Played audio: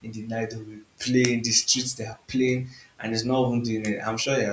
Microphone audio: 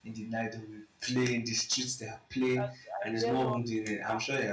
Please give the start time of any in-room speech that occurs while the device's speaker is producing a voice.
3 s

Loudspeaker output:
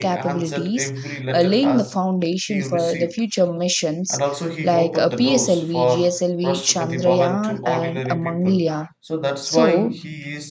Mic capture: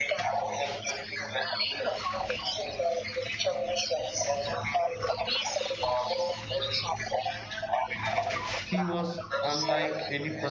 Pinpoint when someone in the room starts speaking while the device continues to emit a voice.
9 s

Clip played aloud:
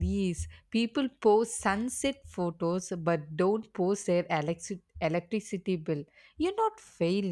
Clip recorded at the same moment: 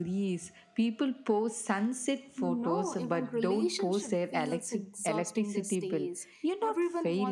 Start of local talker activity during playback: 2 s

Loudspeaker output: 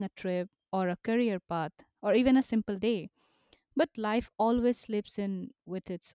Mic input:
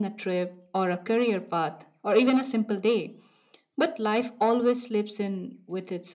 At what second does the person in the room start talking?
none

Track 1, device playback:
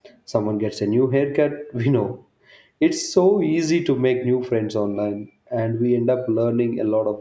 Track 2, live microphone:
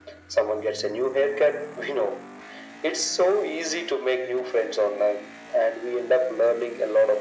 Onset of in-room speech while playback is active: none

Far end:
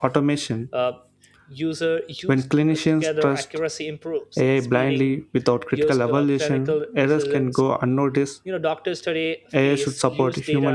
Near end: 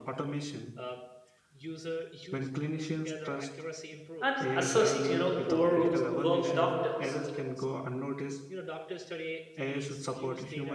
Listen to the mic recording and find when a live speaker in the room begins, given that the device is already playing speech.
4 s

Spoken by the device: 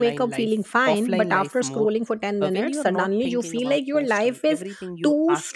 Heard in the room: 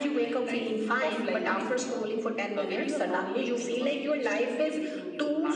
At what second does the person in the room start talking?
none

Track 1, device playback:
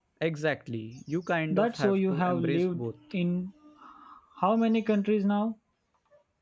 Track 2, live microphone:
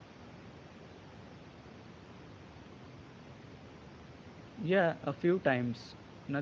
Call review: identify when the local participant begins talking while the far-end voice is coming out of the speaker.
5 s

